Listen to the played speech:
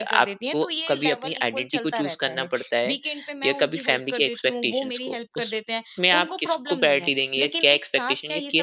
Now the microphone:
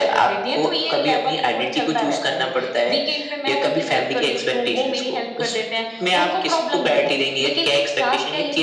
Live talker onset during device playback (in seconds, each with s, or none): none